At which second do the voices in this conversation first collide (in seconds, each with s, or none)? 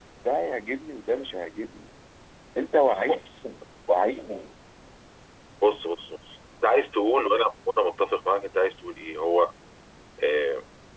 none